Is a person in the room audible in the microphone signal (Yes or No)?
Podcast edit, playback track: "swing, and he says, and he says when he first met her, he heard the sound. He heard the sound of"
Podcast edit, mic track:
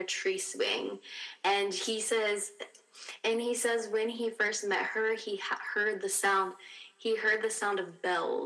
No